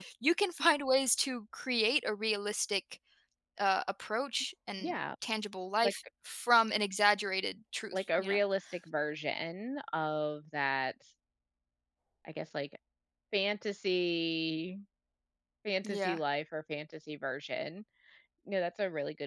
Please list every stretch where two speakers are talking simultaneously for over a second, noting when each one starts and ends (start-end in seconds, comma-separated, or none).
none